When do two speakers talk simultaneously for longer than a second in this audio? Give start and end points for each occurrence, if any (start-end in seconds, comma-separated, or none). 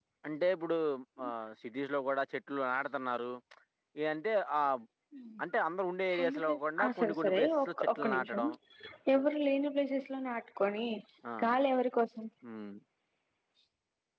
6.2-8.4